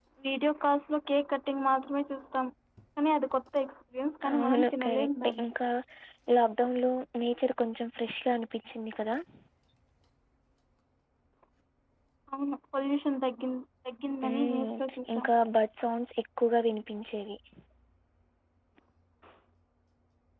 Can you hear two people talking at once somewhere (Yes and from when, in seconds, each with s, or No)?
Yes, from 4.3 s